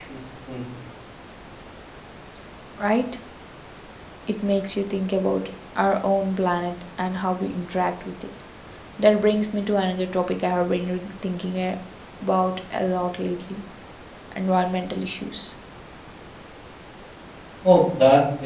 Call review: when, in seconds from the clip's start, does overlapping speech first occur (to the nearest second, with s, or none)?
none